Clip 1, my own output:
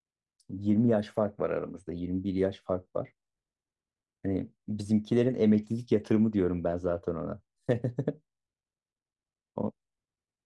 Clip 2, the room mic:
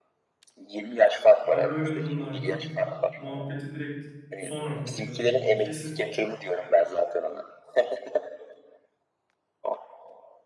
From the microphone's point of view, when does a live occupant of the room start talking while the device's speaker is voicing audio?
1 s

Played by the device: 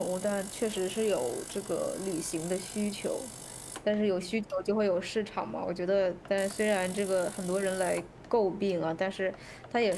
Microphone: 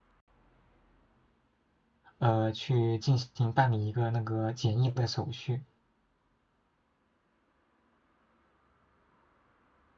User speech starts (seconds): 2 s

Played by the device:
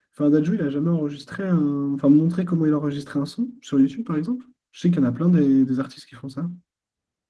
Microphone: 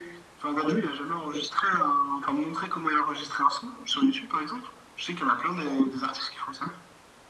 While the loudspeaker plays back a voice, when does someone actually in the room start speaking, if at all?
none

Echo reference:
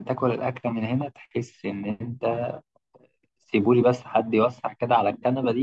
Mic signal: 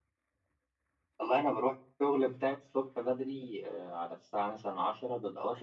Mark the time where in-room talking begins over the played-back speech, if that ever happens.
1 s

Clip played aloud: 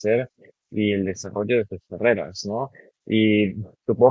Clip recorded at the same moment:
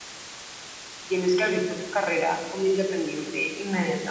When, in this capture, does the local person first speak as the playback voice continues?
1 s

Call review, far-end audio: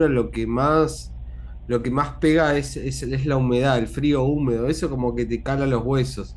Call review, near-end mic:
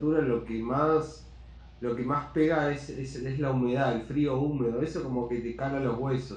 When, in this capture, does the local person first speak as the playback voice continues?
none

